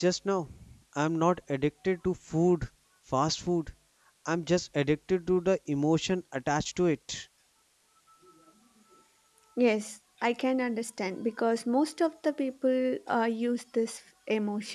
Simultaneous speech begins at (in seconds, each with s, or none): none